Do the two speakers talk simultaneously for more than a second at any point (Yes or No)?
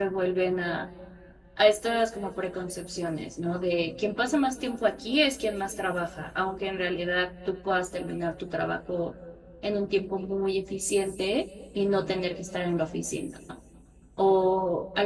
No